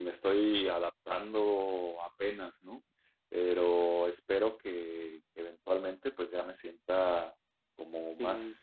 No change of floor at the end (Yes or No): Yes